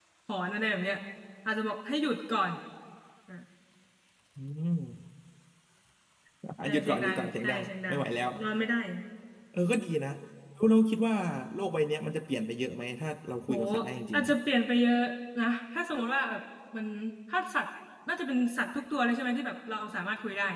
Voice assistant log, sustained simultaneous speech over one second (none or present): present